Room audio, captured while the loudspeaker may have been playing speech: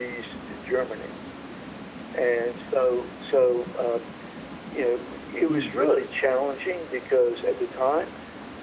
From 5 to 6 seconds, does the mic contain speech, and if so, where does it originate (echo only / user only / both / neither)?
both